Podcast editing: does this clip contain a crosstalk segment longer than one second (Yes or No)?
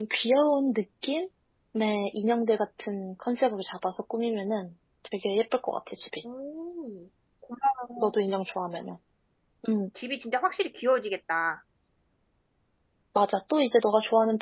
No